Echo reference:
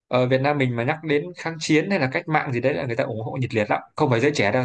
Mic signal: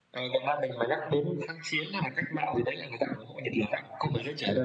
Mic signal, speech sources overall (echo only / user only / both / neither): echo only